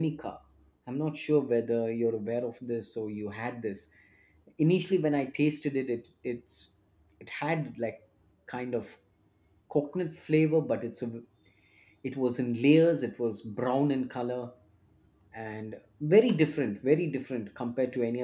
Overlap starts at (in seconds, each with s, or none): none